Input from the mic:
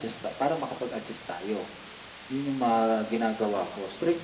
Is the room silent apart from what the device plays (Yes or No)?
Yes